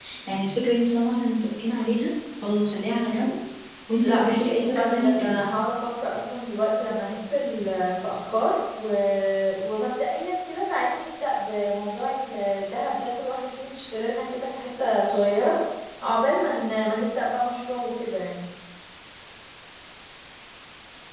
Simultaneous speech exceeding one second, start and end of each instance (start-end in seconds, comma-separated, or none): 4.0-5.4